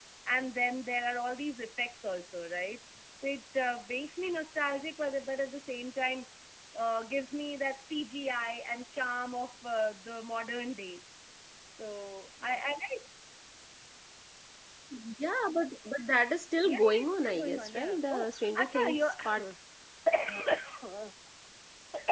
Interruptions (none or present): present